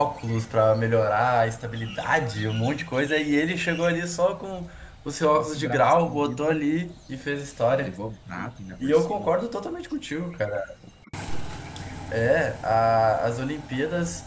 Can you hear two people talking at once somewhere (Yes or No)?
Yes